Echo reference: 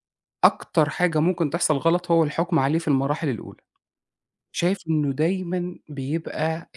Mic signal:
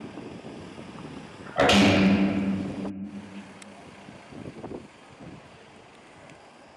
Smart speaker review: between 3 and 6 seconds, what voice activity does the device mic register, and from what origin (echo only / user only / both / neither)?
neither